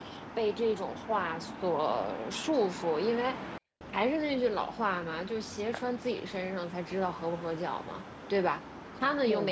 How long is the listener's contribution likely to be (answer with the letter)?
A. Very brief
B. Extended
A